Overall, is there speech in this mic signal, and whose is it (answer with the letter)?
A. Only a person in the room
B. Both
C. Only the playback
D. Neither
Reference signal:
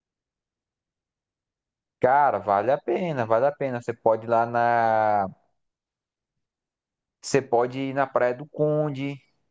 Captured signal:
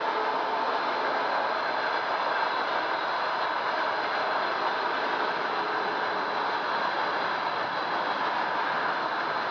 D